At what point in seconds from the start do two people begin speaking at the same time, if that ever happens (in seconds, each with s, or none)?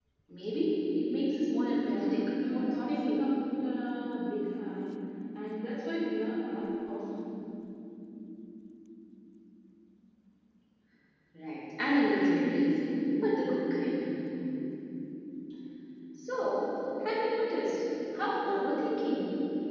1.8 s